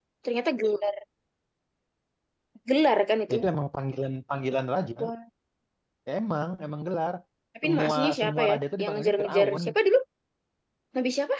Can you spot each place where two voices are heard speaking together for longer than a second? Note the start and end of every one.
7.6-9.6

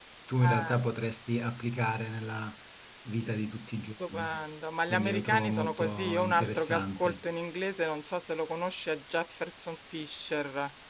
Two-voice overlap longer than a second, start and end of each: 4.9-7.1

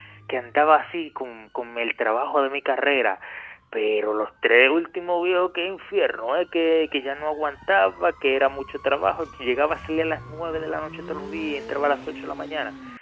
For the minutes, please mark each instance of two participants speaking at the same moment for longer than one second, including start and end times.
none

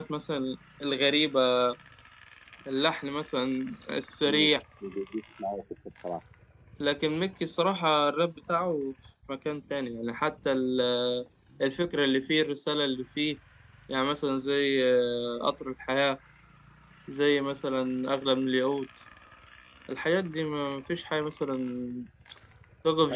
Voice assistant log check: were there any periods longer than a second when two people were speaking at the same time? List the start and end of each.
none

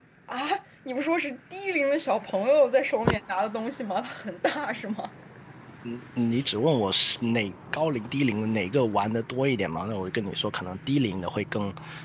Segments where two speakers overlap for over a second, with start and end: none

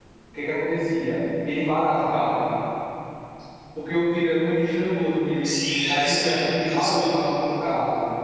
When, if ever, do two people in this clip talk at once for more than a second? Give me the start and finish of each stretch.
5.4-7.1

